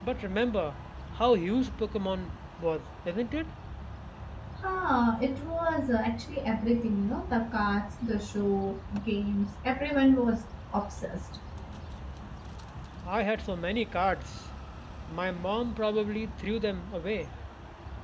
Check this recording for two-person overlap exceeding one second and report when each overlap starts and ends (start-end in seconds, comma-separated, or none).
none